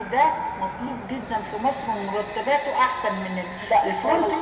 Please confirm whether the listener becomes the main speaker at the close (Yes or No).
No